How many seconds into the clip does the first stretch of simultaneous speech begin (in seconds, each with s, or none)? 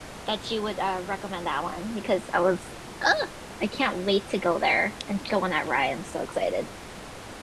none